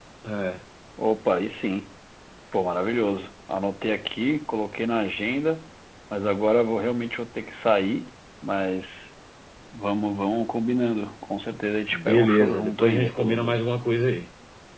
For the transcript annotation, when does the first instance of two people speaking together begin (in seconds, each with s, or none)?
11.9 s